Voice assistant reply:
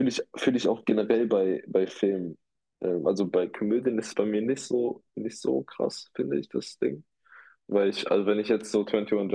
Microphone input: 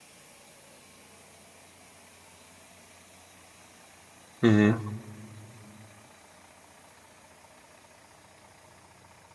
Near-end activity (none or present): present